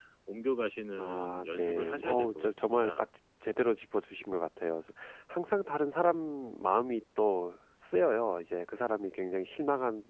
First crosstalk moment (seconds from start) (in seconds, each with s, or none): 1.0 s